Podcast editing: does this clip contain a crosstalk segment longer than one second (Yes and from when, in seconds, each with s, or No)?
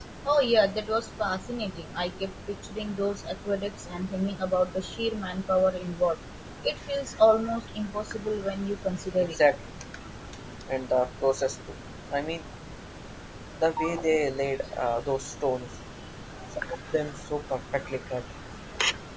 No